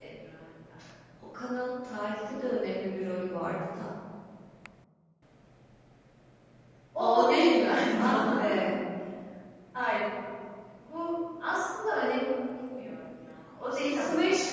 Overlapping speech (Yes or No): Yes